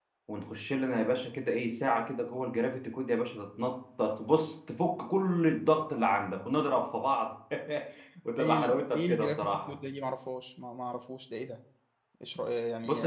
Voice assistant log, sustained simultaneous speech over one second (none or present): present